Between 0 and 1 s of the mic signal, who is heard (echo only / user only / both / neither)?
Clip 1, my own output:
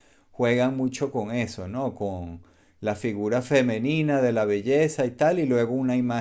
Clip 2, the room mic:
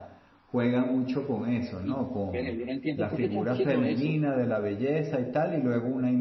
echo only